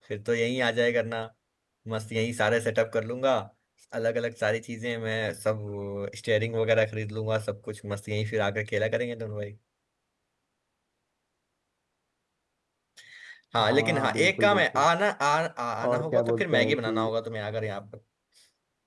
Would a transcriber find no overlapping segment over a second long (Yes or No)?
No